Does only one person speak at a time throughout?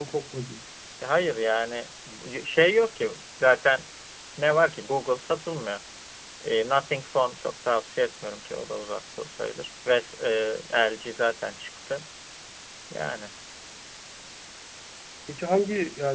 Yes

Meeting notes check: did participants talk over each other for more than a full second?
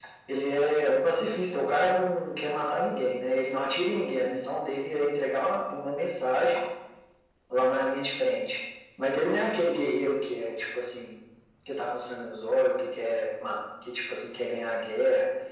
No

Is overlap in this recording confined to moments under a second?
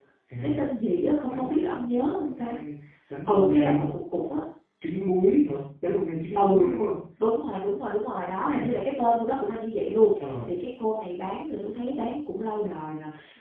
No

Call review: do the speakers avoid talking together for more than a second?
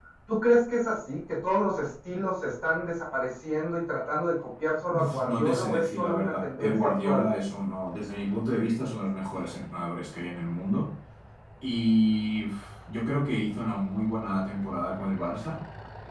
No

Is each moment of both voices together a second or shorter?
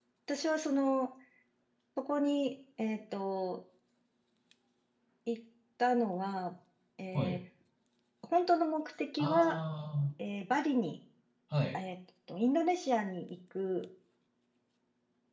Yes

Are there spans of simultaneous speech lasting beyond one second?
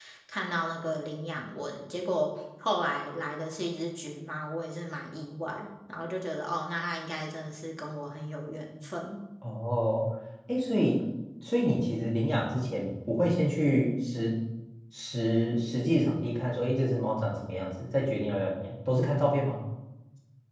No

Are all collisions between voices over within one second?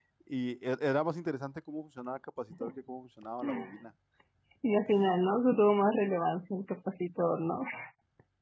Yes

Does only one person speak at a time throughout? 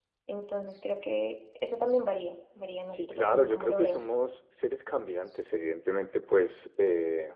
No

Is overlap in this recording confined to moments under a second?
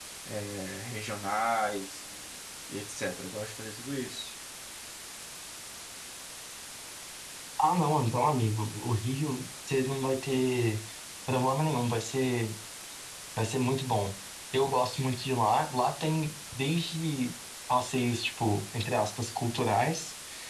Yes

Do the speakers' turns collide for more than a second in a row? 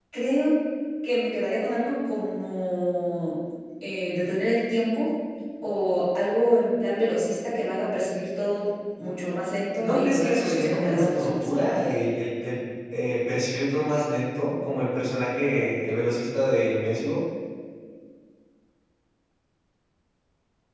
Yes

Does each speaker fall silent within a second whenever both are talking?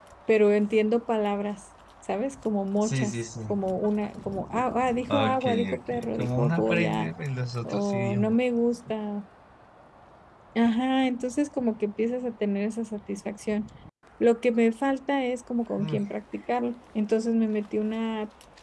No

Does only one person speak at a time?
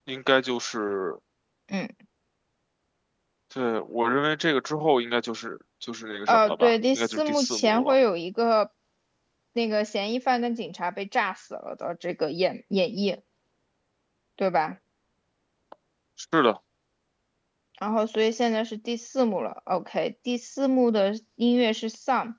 No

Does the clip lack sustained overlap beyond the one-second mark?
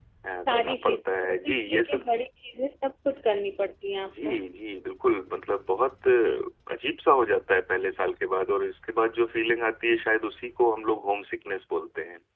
No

